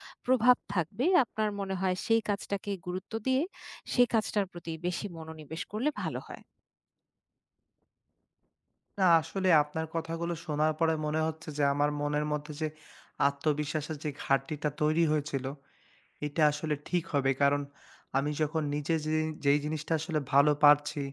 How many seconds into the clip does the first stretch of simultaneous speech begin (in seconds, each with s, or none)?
none